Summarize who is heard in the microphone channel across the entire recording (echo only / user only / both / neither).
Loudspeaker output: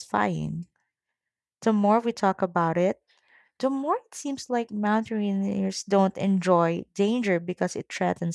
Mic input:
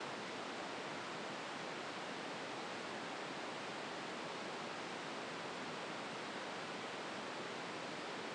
neither